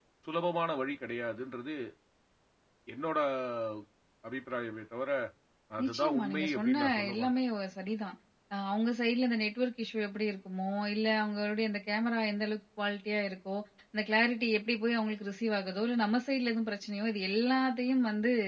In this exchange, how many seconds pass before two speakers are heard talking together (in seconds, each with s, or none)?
5.8 s